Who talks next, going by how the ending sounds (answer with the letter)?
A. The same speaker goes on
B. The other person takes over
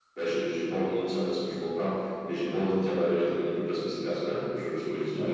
A